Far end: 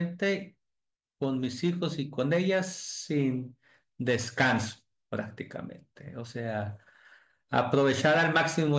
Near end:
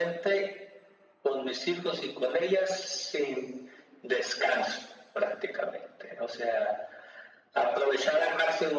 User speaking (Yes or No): No